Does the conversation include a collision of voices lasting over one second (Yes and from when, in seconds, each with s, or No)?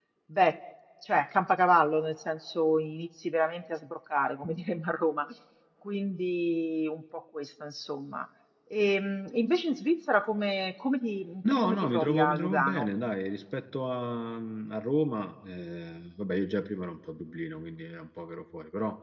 Yes, from 11.4 s